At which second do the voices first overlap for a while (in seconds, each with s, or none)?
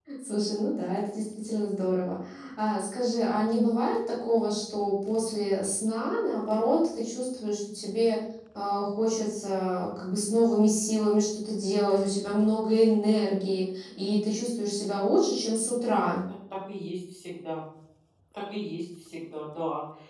none